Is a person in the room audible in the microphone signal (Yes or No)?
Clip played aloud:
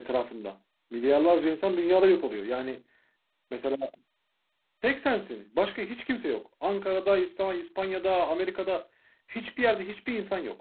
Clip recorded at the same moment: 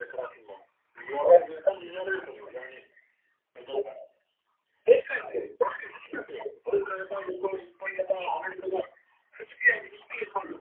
No